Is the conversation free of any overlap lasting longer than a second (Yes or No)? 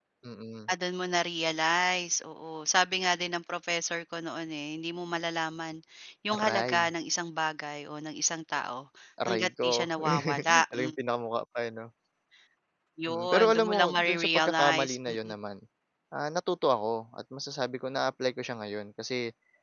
No